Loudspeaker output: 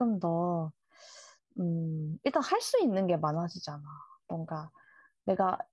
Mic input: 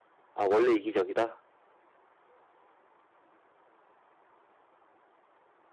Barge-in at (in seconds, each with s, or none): 0.3 s